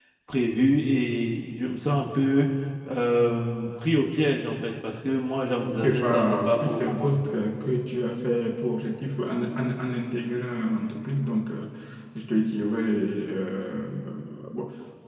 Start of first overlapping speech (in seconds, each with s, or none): 5.7 s